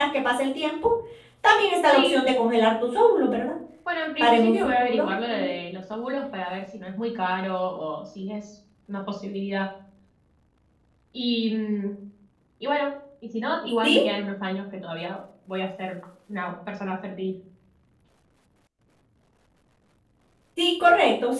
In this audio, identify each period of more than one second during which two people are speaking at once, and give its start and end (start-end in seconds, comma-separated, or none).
4.2-5.5